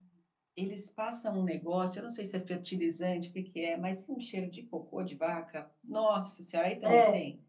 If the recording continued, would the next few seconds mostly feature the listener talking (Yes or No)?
Yes